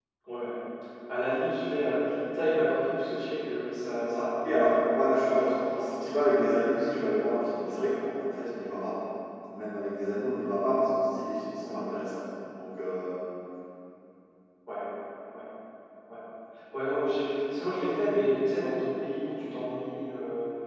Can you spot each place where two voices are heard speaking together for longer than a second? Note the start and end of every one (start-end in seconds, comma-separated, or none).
4.4-7.2